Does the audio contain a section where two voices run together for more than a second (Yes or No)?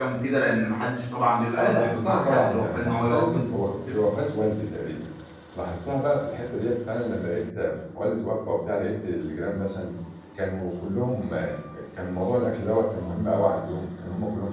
Yes